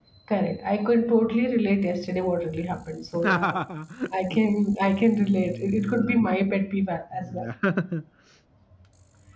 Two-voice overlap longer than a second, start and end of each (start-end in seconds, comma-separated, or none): 5.0-6.2